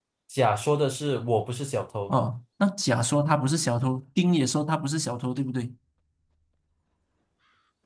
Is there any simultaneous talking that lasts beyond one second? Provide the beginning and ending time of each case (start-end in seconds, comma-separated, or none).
none